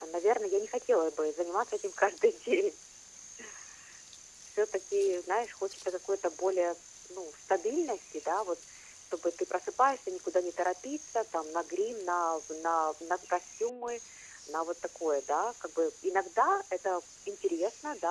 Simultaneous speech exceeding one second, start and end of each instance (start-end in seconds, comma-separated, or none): none